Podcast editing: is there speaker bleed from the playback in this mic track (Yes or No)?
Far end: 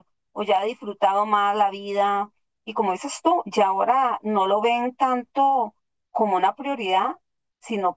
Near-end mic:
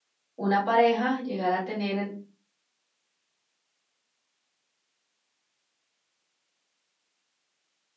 No